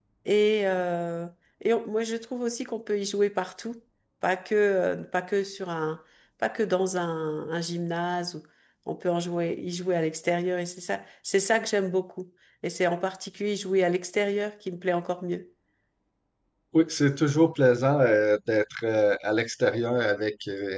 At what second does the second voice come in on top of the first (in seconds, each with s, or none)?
none